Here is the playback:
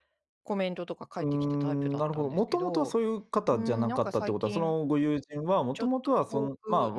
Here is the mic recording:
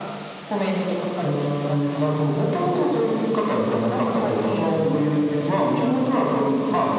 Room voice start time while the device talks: none

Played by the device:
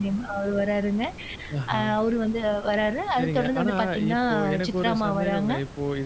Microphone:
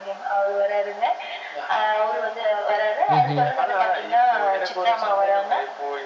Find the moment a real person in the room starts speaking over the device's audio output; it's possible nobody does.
3 s

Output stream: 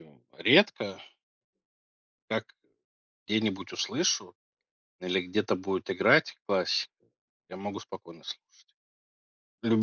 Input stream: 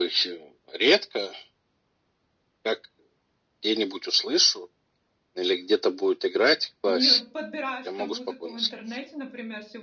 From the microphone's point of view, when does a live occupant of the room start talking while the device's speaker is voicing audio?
6 s

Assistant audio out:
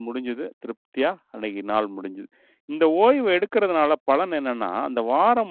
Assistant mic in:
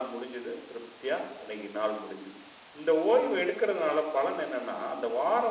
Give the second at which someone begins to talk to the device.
none

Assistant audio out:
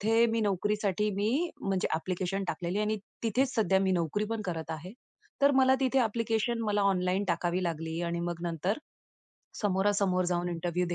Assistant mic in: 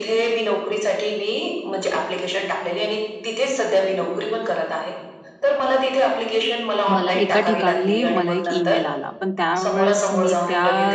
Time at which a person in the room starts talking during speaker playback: 7 s

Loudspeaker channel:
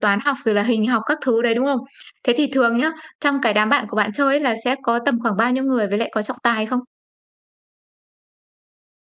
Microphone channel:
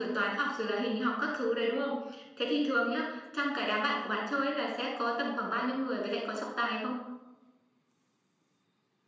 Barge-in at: none

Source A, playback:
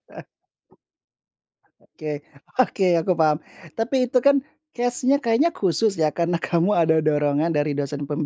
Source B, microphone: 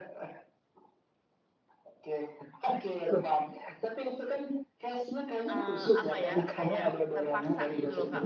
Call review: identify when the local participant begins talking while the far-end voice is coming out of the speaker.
6 s

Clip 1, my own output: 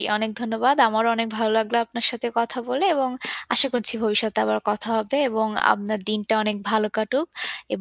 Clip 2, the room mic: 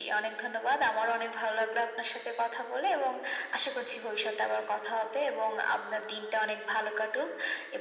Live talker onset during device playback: none

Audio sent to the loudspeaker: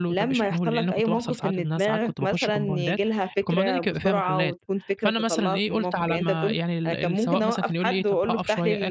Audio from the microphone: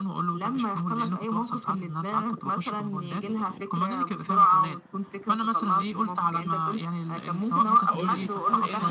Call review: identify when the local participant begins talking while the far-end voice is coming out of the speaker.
8 s

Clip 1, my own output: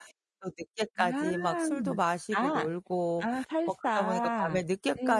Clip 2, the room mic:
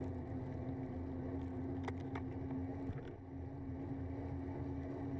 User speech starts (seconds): none

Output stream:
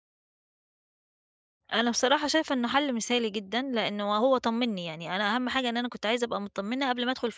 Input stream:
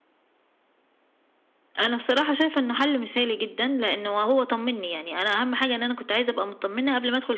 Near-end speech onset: none

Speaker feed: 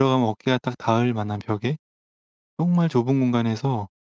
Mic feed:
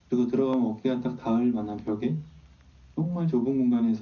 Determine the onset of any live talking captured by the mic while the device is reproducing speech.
none

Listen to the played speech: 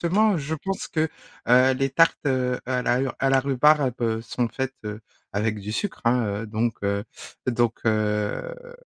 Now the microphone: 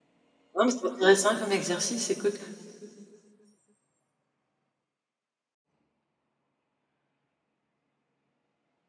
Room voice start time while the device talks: 1 s

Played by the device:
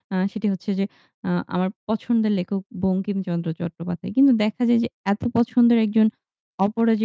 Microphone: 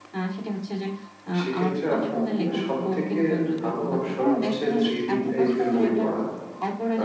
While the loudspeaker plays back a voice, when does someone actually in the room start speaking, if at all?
1 s

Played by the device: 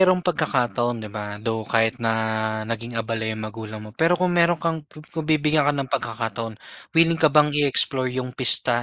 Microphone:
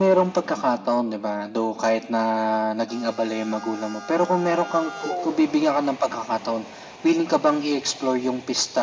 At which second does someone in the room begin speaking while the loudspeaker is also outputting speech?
5 s

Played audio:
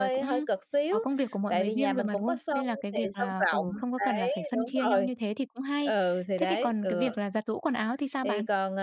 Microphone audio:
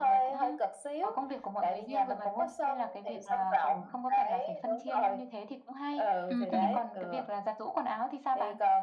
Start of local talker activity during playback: 6 s

